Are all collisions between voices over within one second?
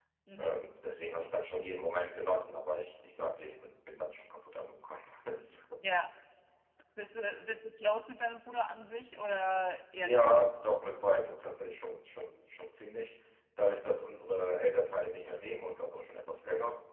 Yes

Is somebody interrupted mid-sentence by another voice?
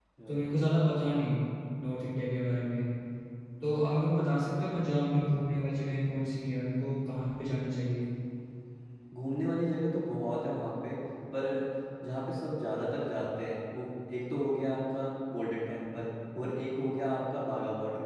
No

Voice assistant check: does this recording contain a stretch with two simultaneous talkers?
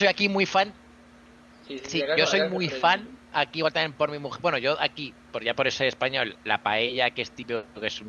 Yes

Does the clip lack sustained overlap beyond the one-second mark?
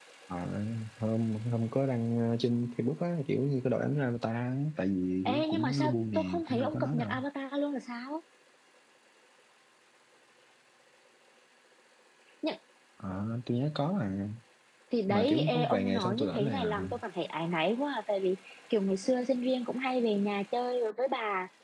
No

